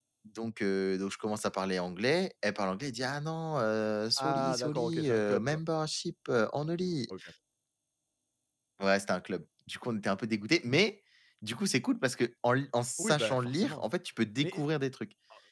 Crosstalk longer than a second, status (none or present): present